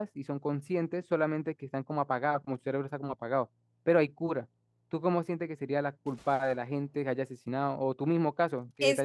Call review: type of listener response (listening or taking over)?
taking over